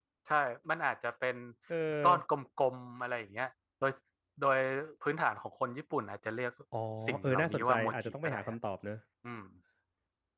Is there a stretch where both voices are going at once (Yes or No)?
Yes